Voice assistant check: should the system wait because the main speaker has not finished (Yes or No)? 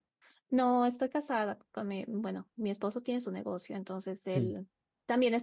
Yes